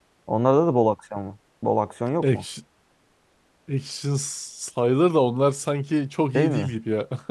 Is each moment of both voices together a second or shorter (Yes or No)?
Yes